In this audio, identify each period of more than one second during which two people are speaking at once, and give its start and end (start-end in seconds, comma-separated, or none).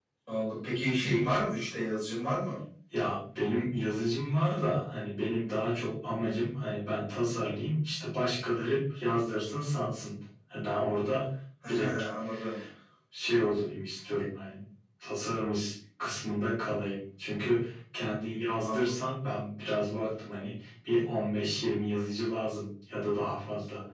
none